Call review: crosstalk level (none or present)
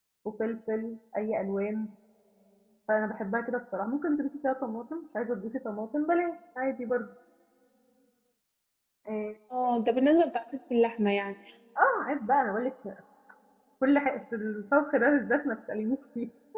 none